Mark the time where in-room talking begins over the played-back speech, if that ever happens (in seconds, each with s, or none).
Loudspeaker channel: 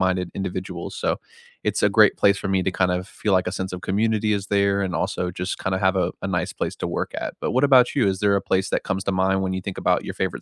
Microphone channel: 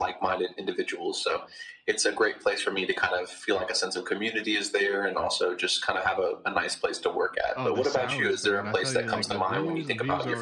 7.5 s